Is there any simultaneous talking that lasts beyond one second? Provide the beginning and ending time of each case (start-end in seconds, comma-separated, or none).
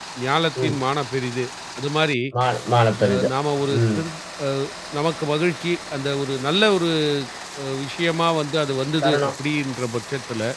none